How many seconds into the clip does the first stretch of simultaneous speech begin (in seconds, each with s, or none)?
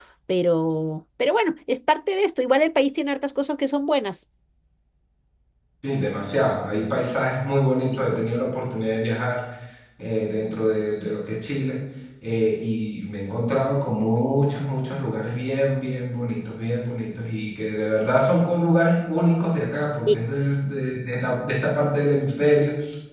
none